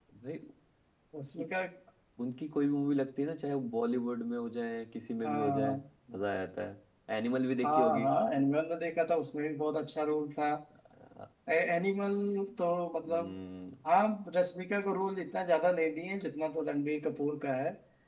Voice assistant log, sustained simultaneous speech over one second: none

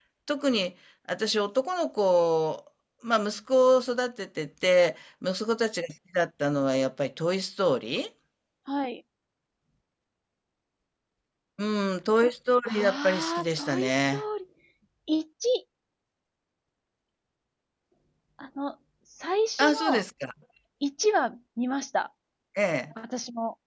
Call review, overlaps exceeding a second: present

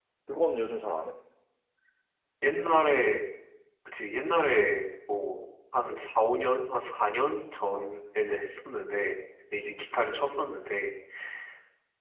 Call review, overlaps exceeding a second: none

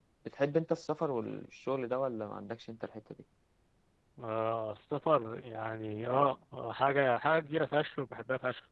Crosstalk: none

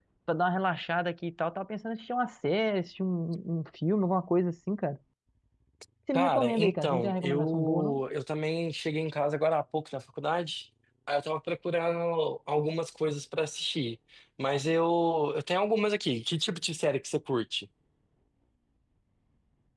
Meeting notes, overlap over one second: present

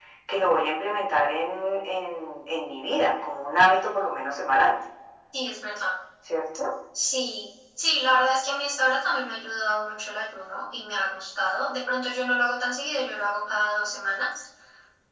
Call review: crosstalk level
none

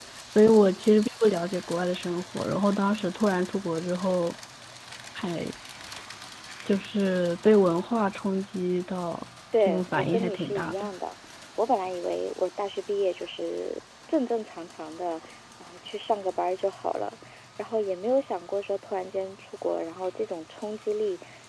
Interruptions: present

